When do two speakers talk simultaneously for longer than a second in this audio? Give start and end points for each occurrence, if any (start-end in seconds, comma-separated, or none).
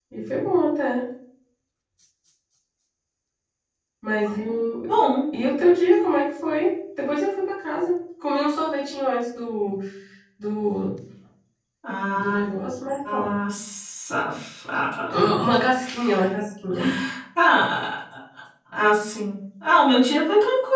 none